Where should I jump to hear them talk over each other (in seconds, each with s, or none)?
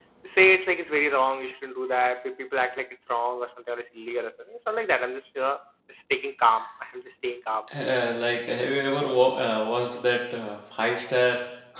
none